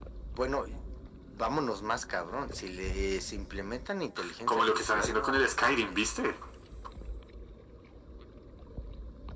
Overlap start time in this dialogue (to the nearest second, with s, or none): 4 s